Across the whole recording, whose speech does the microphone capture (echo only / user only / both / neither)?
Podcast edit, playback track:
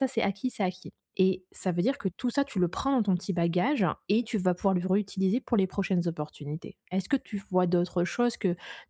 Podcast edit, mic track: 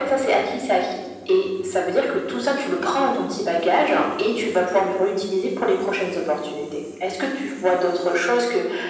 echo only